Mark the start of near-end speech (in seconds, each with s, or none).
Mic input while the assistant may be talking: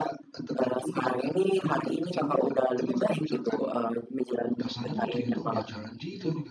4.6 s